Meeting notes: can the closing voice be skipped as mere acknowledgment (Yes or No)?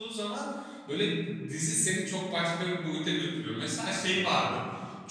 Yes